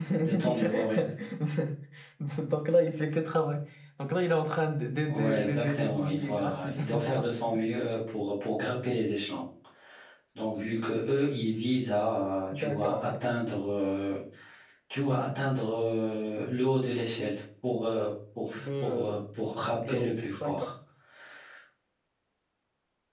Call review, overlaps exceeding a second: present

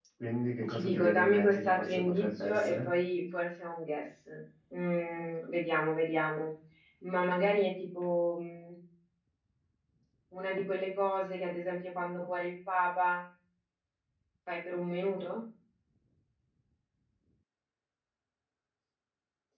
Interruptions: present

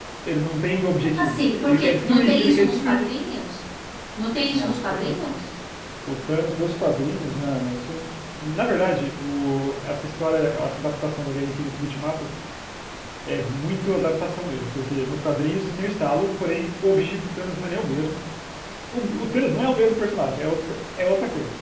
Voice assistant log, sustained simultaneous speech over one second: present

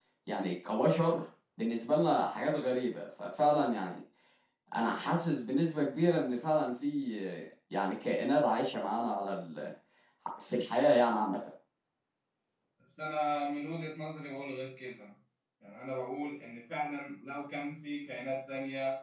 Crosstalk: none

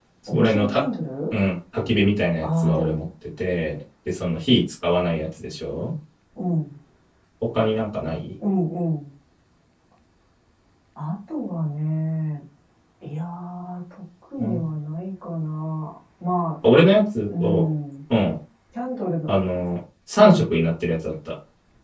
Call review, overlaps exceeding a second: none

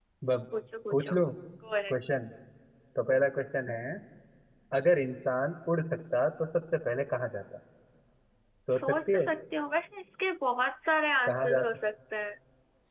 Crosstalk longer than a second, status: none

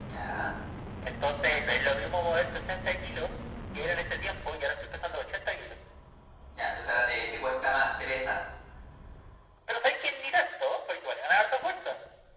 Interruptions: none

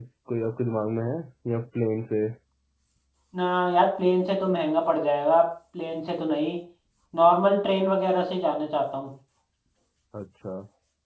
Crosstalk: none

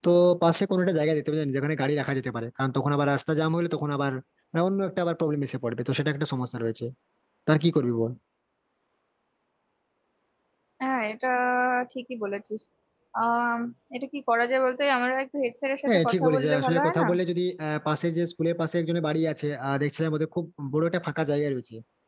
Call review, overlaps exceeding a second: present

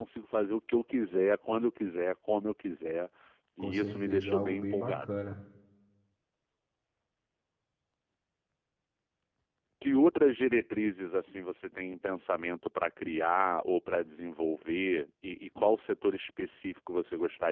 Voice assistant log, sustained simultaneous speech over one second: present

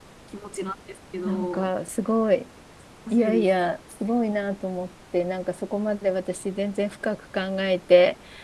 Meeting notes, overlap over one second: none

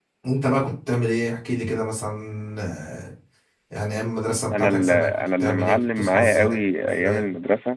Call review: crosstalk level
present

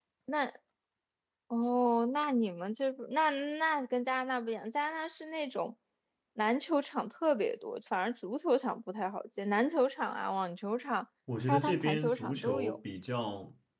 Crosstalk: present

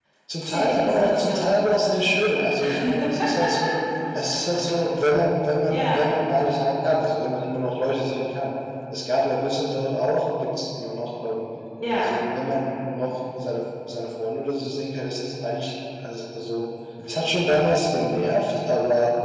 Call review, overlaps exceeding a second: present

